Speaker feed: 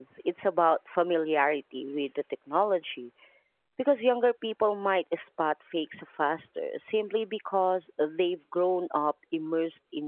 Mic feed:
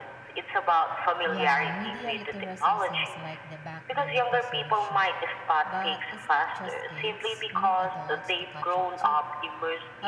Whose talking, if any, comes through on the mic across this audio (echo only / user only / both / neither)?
both